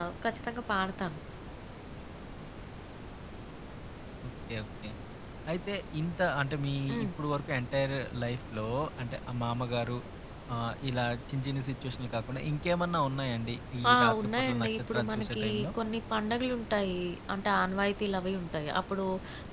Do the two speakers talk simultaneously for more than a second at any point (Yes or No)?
Yes